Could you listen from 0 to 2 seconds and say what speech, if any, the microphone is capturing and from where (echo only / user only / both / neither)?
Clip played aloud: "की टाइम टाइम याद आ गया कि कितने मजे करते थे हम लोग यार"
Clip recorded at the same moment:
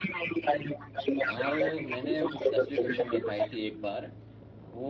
both